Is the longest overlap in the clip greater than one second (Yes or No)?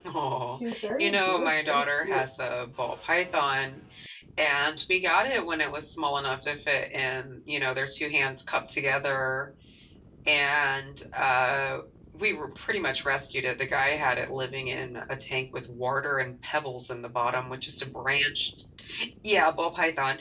Yes